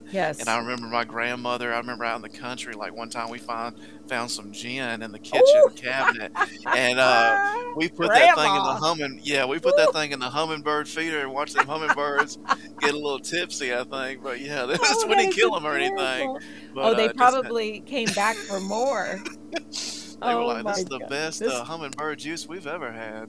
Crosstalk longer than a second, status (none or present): present